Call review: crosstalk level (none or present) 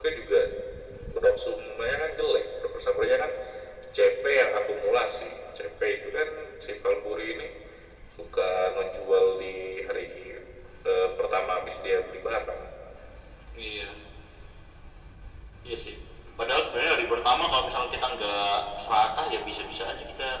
none